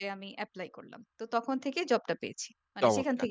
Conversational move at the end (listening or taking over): taking over